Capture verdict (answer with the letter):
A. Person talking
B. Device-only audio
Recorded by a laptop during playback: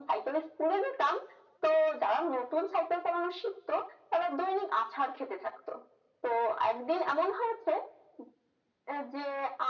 B